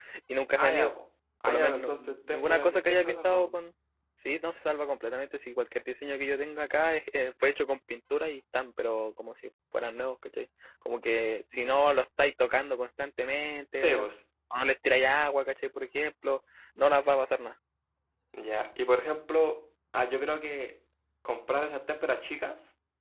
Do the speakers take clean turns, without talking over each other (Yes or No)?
No